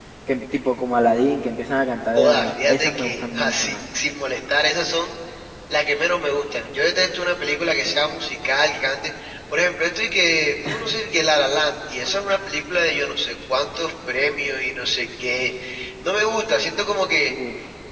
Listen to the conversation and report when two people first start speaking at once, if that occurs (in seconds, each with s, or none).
2.1 s